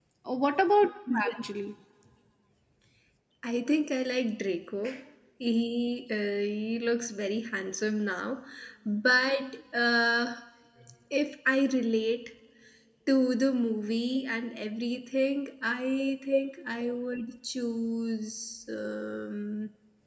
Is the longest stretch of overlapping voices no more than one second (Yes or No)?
Yes